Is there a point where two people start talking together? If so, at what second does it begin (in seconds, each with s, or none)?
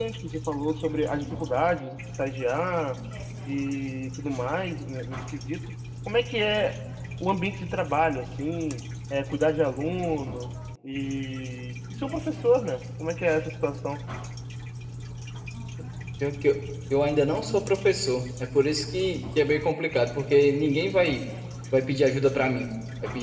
none